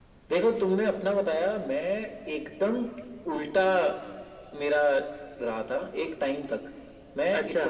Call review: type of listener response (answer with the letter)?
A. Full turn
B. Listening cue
B